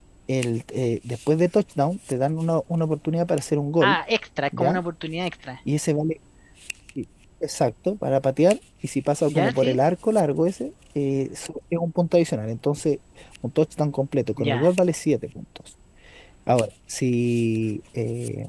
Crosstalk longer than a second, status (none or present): none